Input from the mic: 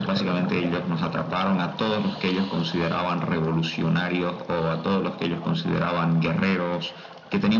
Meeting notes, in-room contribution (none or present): none